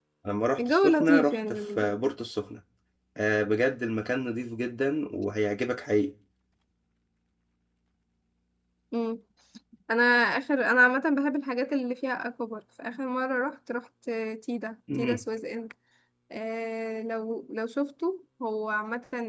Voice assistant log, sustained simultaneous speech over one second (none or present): present